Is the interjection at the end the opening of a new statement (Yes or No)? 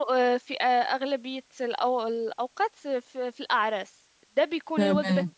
No